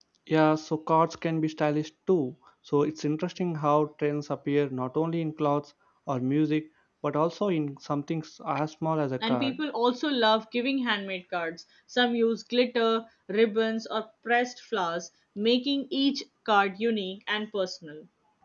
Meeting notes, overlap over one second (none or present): none